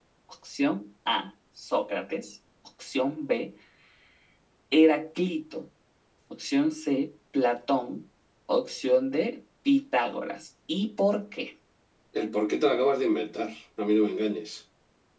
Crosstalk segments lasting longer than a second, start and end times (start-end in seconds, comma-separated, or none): none